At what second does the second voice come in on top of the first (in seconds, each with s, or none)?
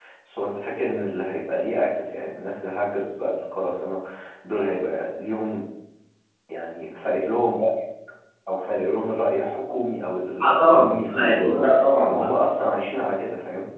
10.4 s